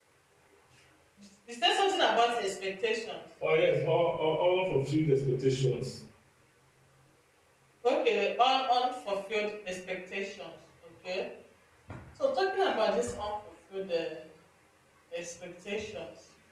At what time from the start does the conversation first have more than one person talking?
none

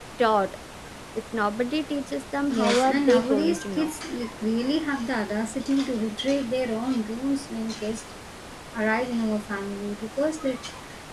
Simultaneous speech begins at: 2.5 s

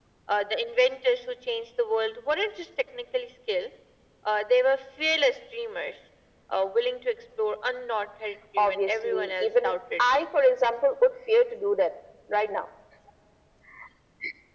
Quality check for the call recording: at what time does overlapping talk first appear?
8.6 s

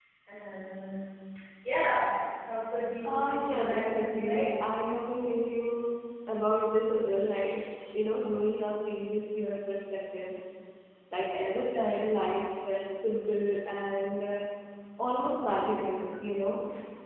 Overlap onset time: 3.0 s

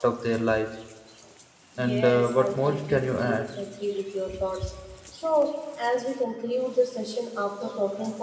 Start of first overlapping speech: 1.8 s

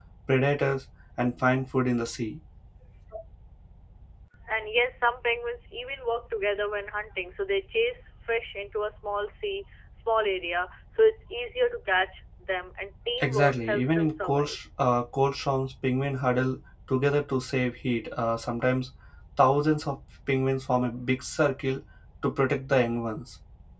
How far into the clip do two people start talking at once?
13.2 s

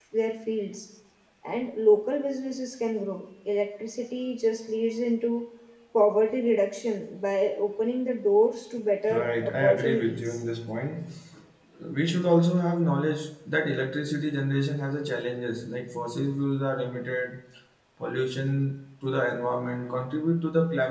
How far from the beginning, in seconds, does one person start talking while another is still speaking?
9.1 s

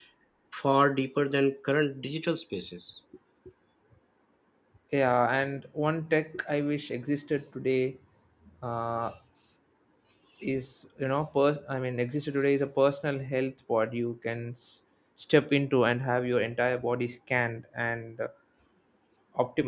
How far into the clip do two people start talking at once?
none

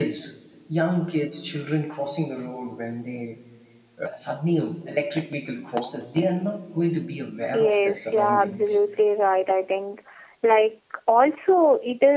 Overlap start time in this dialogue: 7.5 s

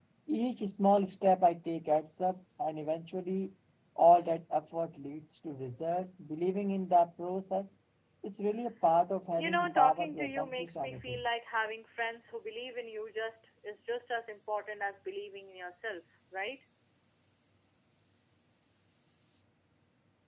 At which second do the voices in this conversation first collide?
9.4 s

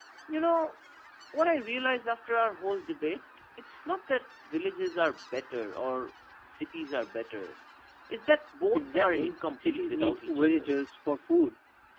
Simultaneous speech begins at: 8.7 s

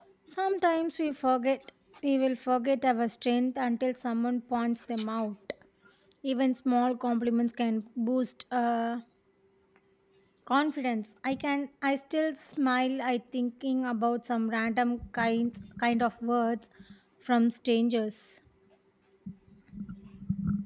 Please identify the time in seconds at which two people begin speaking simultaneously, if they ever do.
none

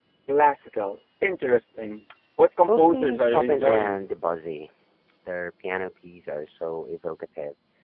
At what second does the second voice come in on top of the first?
2.7 s

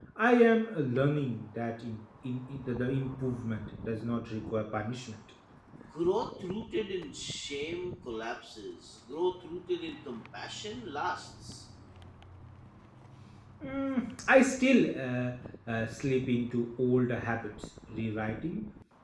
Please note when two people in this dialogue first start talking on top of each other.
none

